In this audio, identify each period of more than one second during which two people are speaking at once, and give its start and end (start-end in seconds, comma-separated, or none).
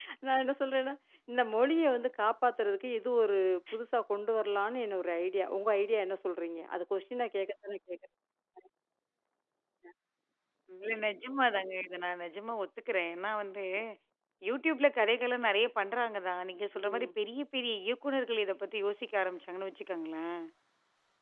none